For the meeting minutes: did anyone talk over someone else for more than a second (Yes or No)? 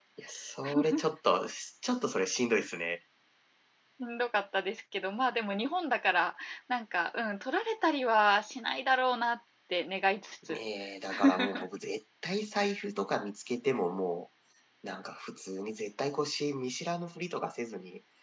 No